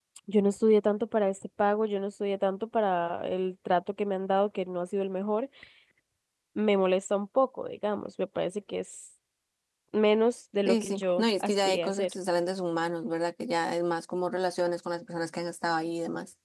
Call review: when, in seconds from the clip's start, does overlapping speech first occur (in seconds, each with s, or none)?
10.7 s